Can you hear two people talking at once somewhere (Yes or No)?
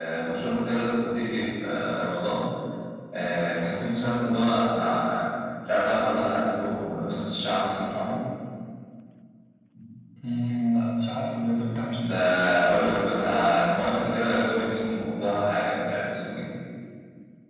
No